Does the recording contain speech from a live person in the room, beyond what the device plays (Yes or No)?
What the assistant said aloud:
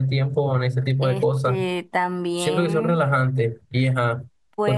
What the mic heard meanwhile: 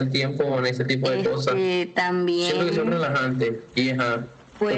No